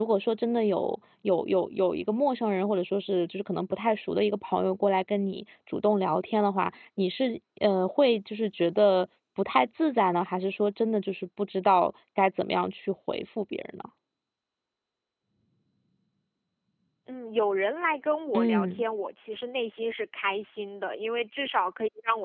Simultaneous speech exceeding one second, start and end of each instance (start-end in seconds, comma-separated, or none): none